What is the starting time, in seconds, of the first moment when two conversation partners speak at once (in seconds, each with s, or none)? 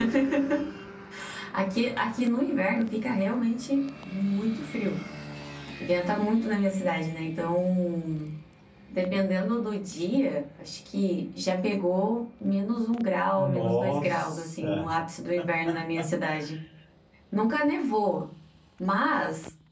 13.4 s